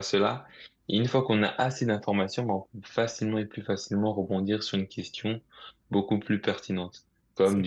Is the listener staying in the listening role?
Yes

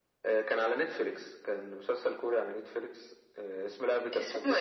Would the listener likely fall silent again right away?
Yes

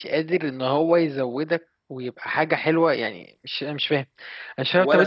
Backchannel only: No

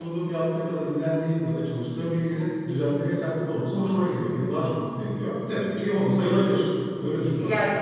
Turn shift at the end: Yes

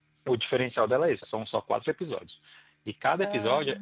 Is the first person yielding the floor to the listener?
No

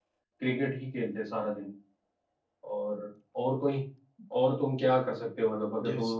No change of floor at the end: No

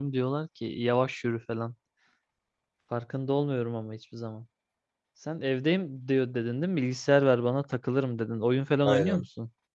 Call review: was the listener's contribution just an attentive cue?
No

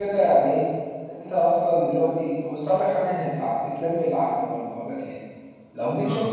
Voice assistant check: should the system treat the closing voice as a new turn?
No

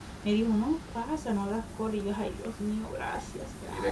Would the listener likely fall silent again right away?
No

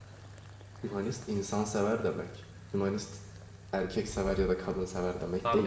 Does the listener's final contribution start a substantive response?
Yes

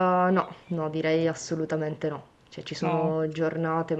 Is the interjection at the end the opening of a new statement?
No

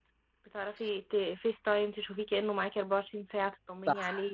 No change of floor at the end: No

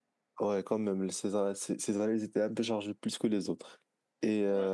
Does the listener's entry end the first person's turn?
No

